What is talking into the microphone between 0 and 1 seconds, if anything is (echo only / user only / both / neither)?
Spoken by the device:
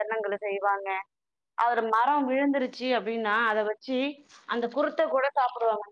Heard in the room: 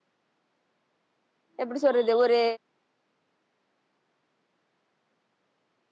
neither